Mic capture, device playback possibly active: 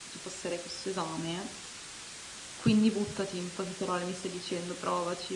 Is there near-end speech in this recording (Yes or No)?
Yes